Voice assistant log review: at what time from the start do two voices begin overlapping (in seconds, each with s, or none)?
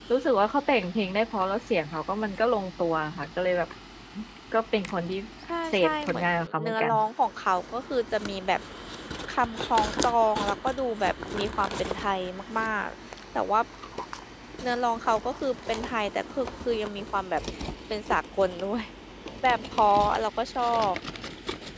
5.7 s